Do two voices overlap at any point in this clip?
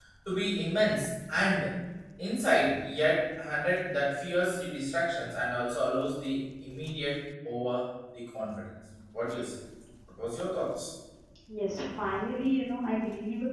No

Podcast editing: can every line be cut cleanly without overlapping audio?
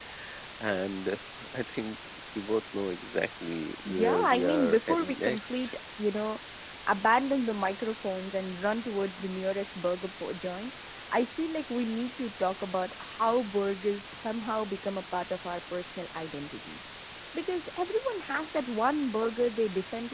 No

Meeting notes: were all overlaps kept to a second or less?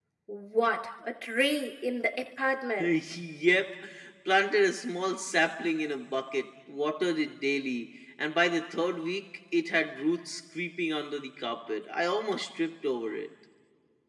Yes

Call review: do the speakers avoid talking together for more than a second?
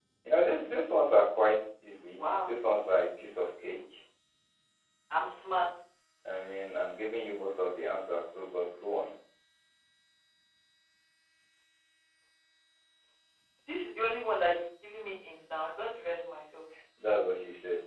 Yes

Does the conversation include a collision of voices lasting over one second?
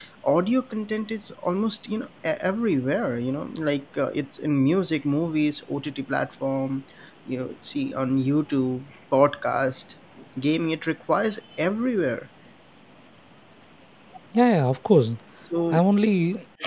No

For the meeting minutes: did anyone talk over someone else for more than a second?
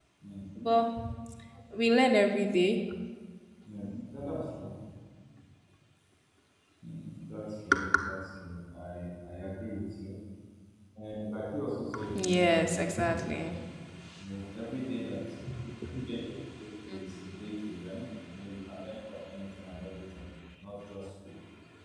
Yes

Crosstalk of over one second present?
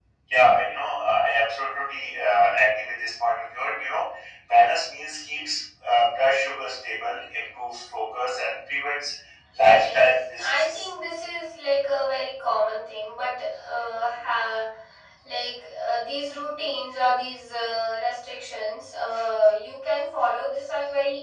Yes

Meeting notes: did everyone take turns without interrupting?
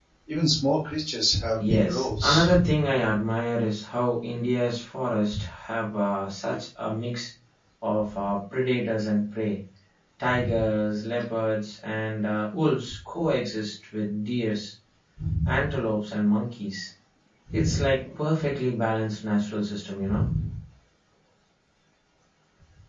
No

